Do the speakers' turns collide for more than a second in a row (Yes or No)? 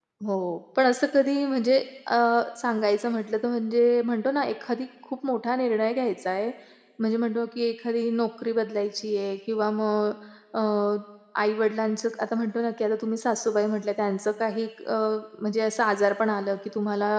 No